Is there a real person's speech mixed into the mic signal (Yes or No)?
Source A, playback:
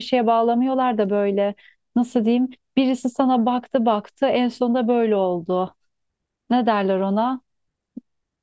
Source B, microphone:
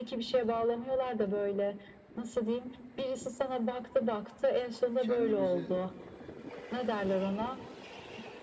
Yes